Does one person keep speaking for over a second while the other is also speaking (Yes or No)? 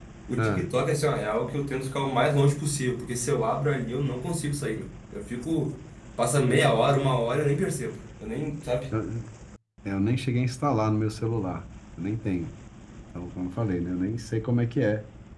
No